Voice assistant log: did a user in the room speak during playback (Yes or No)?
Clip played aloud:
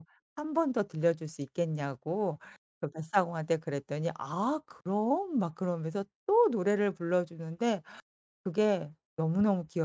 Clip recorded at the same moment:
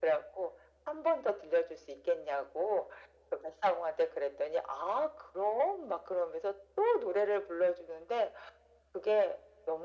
No